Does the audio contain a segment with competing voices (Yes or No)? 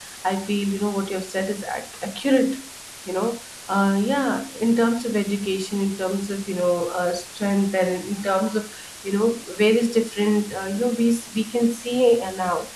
No